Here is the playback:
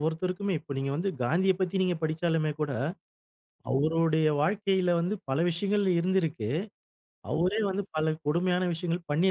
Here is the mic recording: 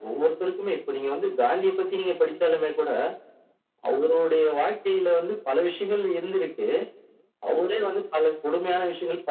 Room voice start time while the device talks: none

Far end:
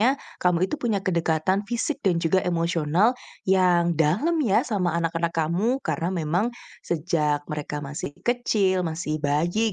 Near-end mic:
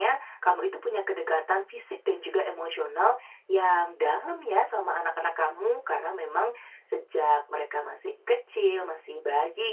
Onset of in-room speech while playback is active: none

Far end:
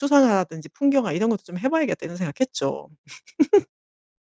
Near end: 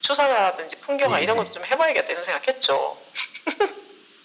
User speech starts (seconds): 1.0 s

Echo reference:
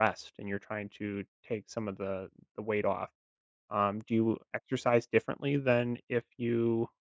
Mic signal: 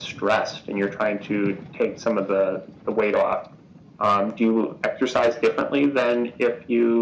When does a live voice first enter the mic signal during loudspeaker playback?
none

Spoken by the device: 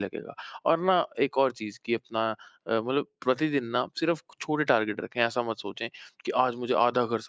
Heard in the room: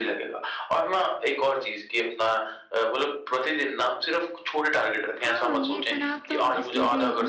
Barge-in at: 5.2 s

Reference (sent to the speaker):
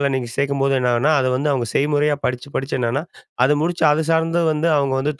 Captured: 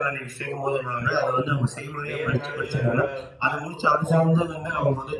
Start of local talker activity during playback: 2.1 s

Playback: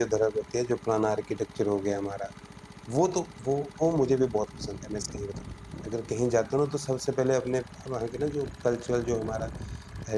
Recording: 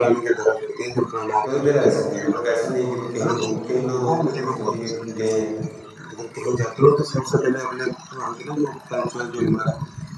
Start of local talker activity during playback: 1.5 s

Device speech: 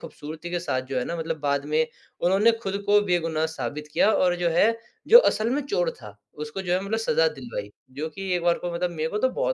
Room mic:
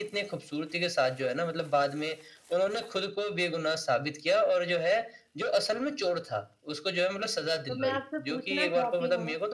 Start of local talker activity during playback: 7.7 s

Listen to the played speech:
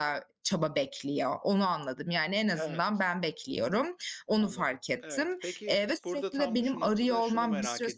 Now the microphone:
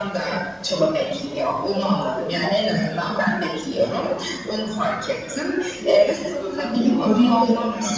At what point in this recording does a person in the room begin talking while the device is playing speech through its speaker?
none

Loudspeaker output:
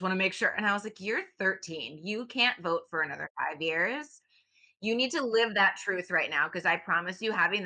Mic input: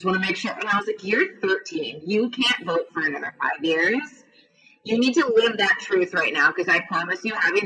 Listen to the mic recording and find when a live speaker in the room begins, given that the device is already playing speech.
none

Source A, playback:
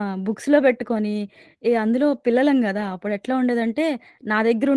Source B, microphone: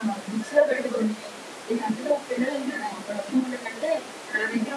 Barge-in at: none

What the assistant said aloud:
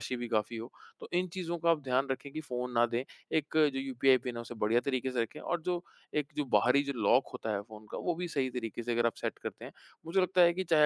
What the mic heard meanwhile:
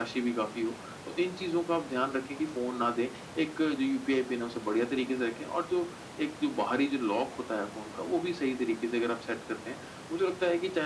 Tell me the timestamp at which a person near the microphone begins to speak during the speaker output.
none

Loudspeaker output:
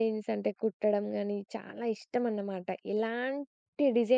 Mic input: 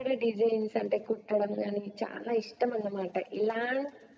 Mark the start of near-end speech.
none

